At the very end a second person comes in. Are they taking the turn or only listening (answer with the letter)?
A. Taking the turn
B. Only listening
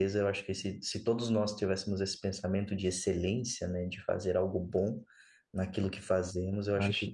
B